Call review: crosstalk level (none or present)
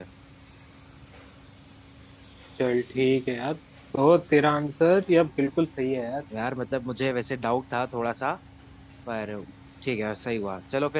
none